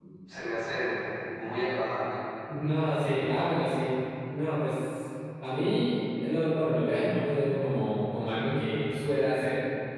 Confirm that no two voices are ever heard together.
Yes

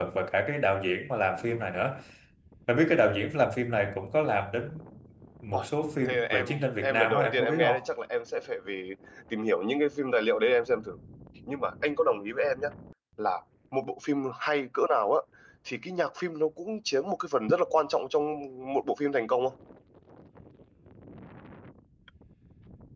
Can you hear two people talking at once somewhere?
Yes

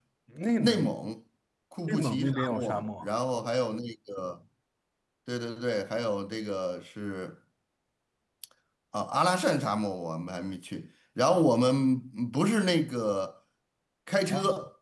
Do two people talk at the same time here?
Yes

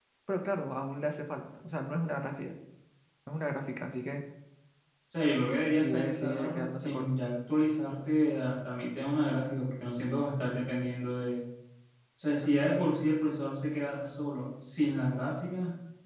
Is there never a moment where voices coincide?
No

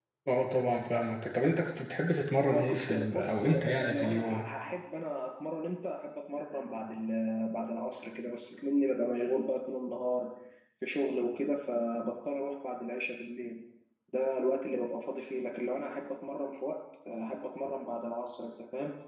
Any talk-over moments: Yes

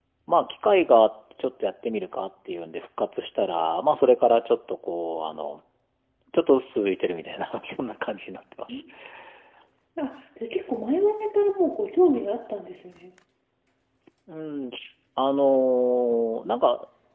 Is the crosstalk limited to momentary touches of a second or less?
Yes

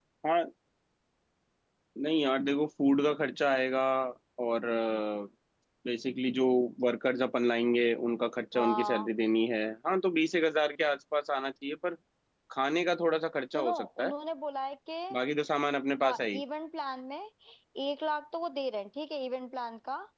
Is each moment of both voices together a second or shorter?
Yes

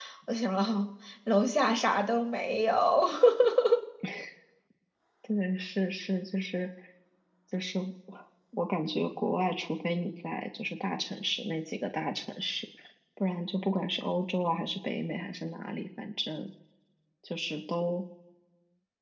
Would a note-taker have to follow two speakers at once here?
No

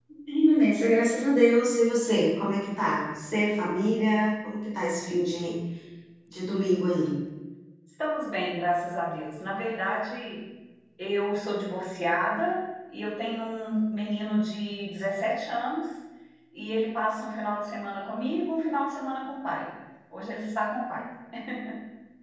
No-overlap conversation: Yes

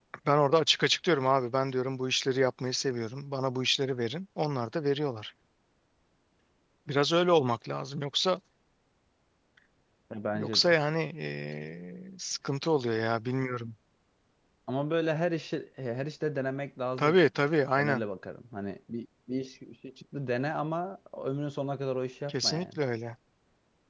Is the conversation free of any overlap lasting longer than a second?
Yes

